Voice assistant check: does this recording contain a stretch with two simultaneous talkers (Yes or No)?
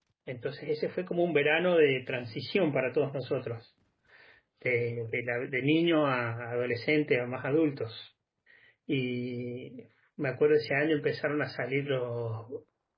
No